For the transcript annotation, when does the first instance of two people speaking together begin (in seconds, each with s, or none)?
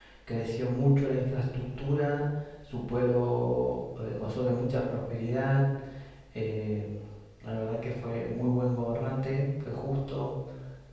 none